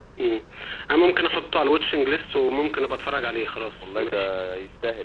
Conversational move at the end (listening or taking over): taking over